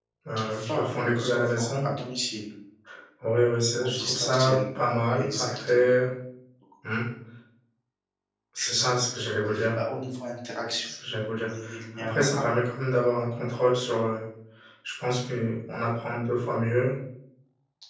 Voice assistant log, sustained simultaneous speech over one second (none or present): present